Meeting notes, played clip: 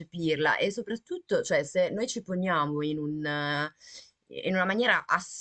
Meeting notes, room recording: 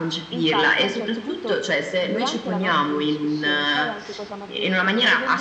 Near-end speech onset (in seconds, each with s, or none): 0.3 s